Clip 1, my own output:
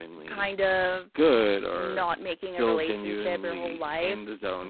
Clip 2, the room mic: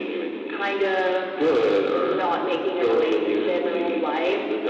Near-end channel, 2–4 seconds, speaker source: echo only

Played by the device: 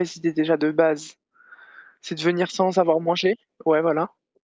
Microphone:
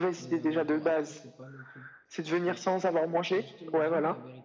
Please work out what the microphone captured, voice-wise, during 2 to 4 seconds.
both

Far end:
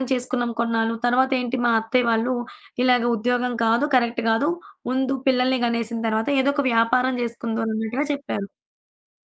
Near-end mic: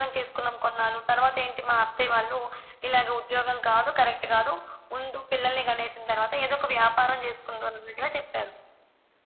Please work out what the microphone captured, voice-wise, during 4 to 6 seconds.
echo only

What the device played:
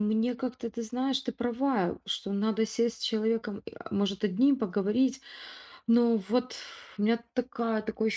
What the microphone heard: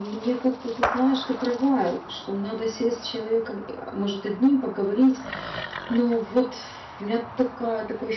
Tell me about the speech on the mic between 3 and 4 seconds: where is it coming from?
echo only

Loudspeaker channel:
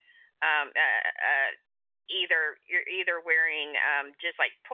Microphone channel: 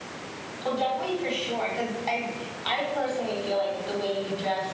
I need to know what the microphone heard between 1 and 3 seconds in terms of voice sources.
user only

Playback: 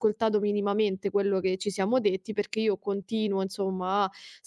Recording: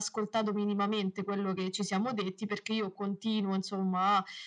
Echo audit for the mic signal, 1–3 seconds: echo only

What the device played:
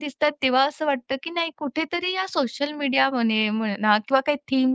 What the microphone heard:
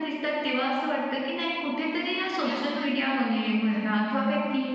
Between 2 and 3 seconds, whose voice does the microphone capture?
both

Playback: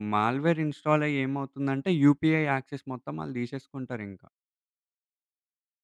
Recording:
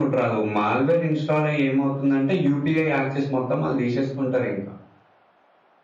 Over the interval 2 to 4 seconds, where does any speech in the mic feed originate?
echo only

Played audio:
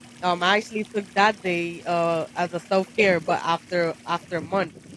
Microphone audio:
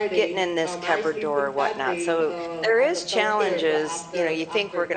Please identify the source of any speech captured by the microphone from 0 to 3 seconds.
both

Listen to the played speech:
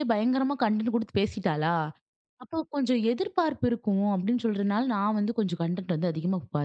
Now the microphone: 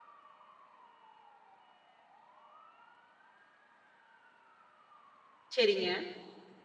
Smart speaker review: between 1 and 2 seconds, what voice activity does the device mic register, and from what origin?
neither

